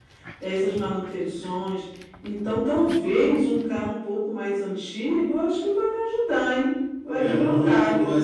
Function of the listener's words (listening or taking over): taking over